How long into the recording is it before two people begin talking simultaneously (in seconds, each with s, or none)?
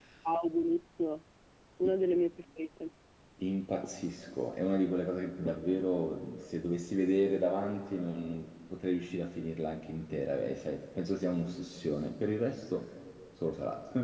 none